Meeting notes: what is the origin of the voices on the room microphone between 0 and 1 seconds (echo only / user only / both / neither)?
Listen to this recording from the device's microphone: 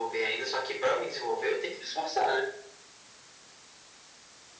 echo only